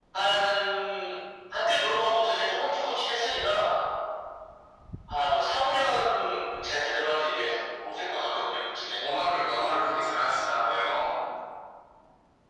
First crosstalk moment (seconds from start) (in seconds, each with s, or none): none